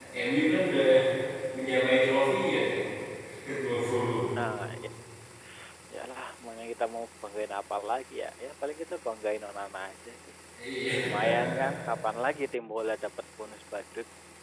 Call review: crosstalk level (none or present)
none